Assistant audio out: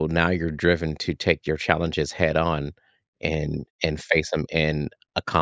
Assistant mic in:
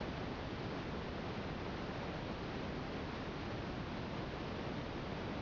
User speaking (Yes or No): No